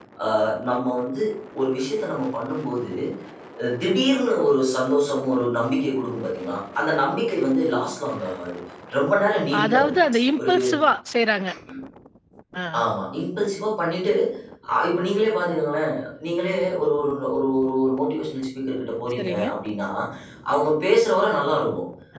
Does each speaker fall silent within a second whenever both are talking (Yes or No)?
Yes